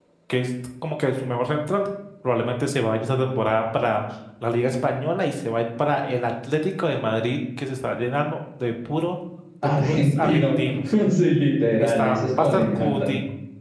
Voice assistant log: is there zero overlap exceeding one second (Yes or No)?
No